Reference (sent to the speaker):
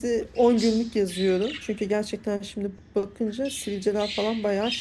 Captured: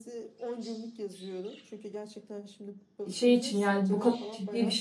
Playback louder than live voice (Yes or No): No